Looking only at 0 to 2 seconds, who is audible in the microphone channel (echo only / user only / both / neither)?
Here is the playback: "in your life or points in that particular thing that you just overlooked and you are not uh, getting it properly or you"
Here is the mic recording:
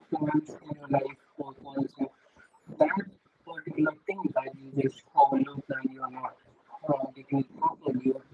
echo only